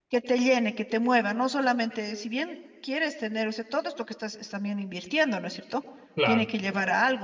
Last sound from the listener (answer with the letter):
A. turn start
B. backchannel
B